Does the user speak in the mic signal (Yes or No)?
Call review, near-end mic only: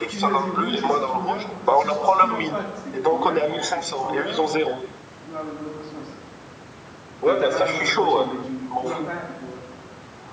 Yes